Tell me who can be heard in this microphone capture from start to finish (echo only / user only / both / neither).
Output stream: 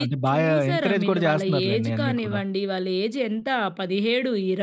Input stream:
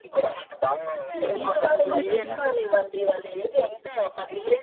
both